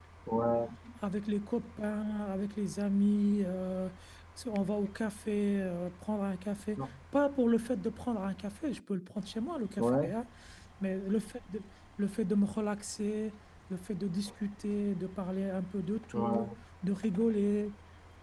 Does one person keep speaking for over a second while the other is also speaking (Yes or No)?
No